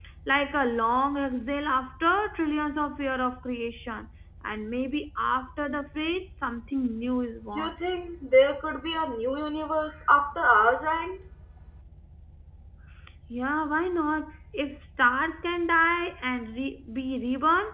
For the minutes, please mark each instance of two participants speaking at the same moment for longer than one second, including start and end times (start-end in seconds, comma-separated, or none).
none